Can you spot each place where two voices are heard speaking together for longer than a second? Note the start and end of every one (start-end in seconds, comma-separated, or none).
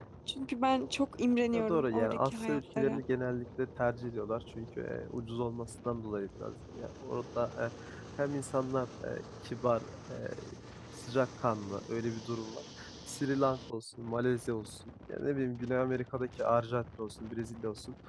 1.5-3.0